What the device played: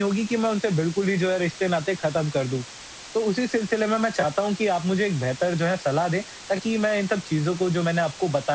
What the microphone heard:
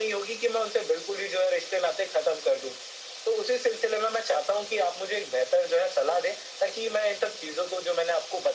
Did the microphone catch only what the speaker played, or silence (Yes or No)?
Yes